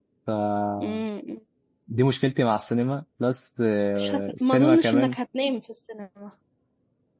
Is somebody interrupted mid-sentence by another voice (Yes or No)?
Yes